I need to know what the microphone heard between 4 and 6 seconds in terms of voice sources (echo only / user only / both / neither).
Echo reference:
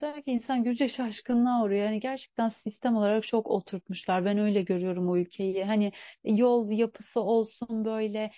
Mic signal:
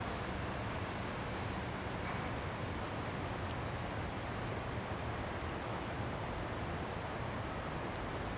neither